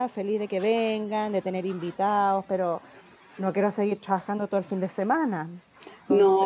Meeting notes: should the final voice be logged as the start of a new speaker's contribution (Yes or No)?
Yes